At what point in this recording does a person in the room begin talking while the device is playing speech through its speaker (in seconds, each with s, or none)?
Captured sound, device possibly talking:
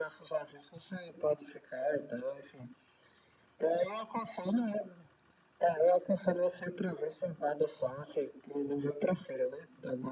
none